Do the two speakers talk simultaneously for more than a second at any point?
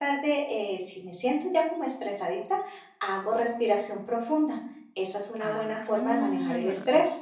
Yes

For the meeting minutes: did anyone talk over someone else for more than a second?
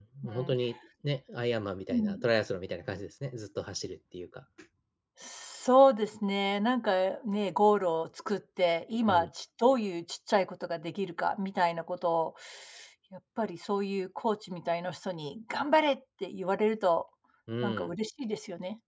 No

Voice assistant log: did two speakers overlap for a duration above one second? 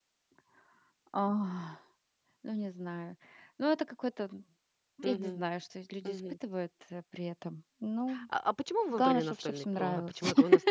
Yes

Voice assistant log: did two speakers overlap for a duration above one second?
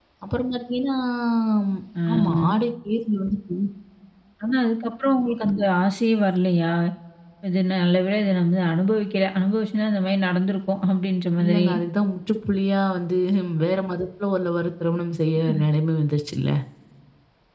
No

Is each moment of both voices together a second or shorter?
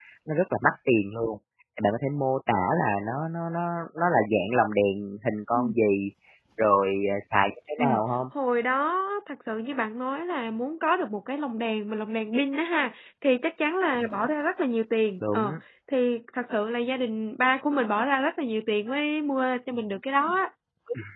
Yes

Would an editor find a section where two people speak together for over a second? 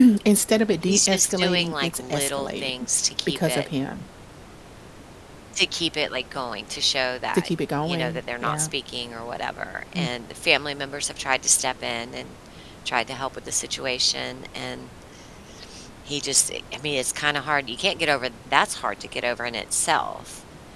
Yes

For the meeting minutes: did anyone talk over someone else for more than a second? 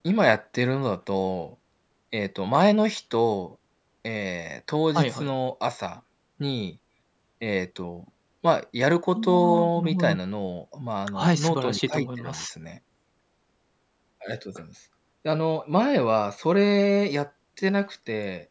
Yes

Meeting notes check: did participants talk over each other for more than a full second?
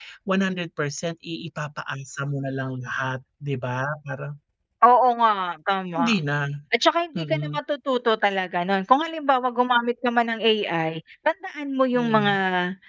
No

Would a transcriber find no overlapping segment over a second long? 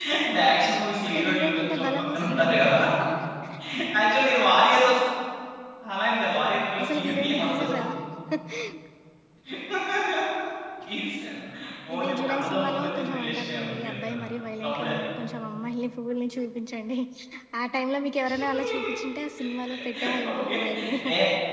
No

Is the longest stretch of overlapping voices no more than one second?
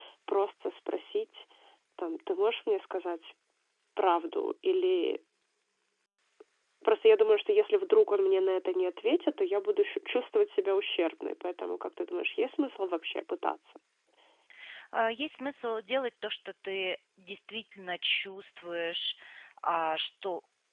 Yes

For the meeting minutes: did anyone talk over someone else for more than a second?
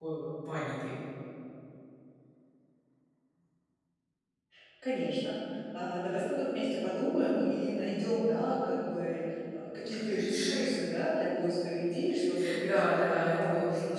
Yes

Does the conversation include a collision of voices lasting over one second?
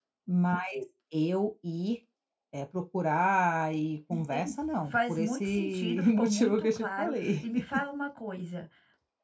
Yes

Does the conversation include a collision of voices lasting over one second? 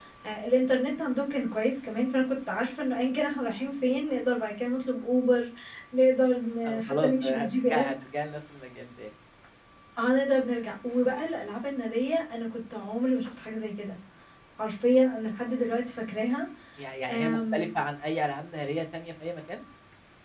Yes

